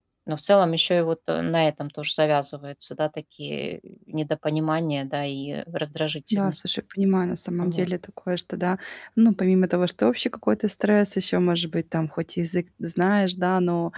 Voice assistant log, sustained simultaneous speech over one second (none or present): none